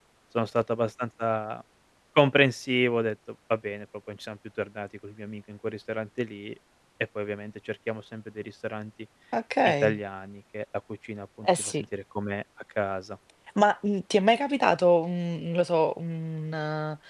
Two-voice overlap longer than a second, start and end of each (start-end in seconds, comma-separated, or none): none